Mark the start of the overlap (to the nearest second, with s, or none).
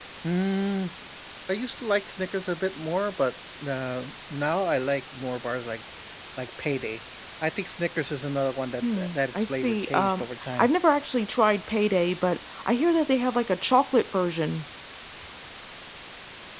9 s